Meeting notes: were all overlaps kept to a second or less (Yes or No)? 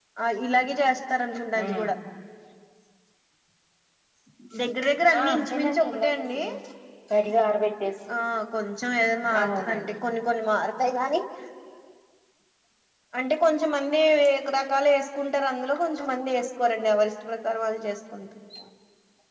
No